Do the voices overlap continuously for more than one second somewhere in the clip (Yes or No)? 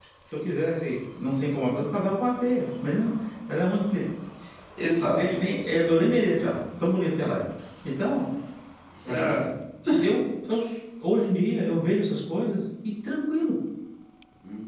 No